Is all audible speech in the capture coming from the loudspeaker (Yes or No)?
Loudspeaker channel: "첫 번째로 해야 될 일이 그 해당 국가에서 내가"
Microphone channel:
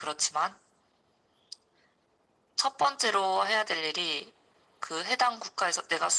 Yes